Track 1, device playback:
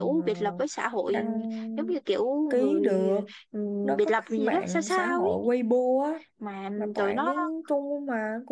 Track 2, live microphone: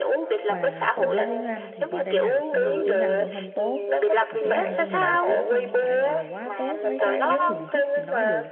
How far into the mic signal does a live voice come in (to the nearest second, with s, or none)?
0 s